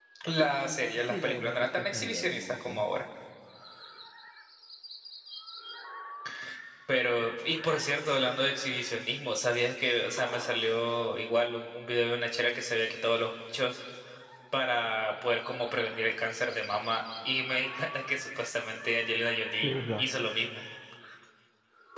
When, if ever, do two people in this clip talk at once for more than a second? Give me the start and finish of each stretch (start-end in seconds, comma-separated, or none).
1.1-2.8